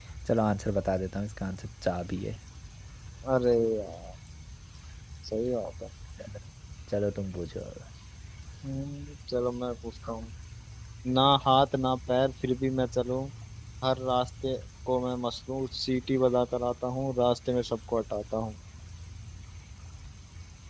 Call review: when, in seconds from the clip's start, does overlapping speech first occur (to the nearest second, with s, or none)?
none